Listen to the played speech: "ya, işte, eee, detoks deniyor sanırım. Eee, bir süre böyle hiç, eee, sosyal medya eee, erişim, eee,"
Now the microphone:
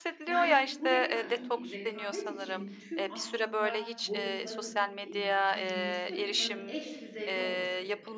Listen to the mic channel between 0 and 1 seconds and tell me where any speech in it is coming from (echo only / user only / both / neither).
both